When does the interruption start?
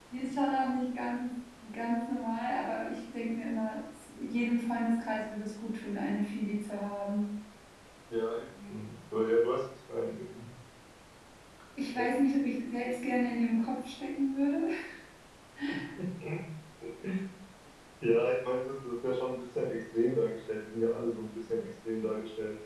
none

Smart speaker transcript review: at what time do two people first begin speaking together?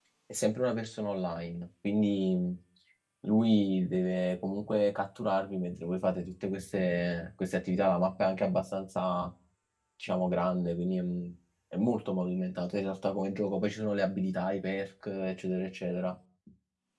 none

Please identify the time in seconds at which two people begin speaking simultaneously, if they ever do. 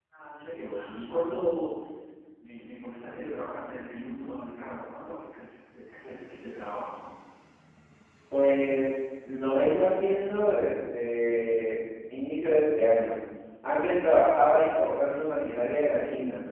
none

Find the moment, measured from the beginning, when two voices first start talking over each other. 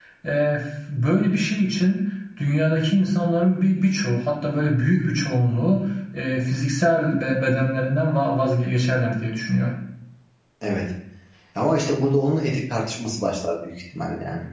none

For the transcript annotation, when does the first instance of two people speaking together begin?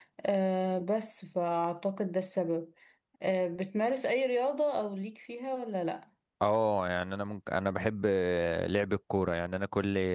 none

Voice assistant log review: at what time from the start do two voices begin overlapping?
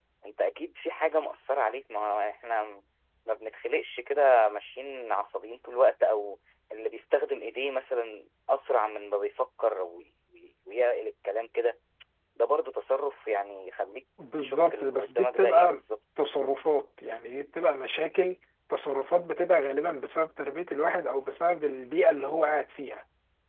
14.2 s

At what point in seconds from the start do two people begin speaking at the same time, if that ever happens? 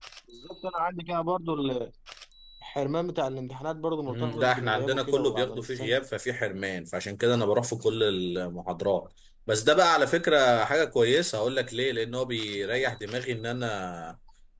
4.1 s

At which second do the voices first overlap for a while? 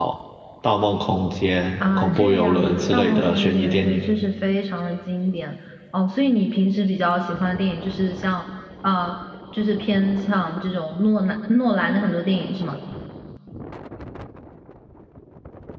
1.8 s

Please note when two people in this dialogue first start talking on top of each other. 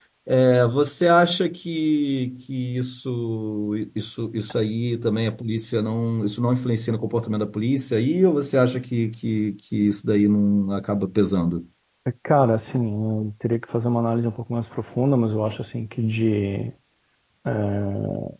none

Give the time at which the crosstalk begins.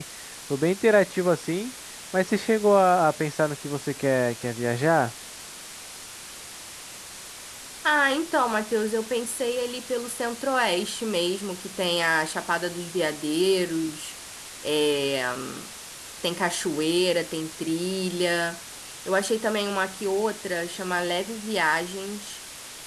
none

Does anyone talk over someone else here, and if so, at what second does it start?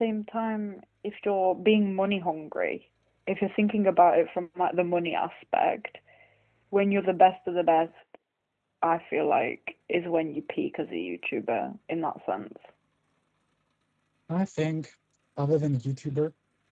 none

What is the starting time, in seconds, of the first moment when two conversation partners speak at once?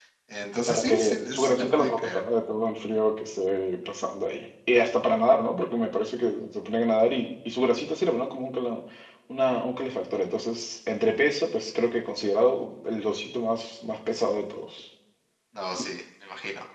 0.7 s

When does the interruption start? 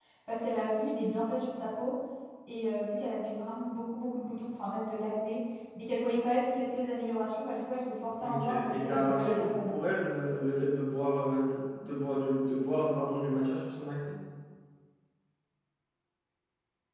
8.2 s

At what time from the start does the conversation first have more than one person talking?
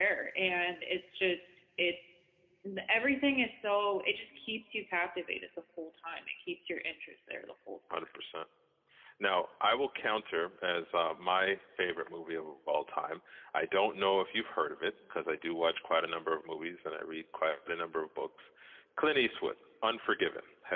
none

